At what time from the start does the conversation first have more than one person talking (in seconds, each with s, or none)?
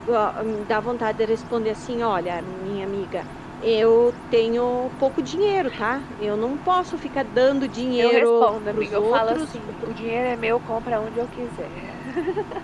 8.0 s